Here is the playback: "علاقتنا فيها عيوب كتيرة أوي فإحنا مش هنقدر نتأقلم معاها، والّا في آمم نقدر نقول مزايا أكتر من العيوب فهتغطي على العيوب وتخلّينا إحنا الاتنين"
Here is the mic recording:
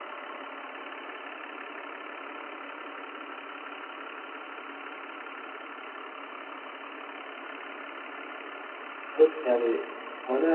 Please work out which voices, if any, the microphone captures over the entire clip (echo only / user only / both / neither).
user only